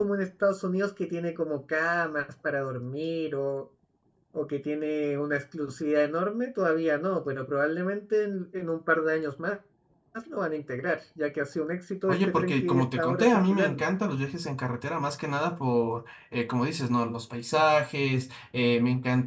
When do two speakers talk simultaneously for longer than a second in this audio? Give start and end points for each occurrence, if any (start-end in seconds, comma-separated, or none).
12.1-13.9